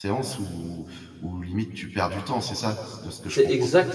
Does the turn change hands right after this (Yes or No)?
Yes